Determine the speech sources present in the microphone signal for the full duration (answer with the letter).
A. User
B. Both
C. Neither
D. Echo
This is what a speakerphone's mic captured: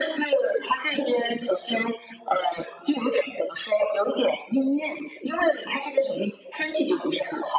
D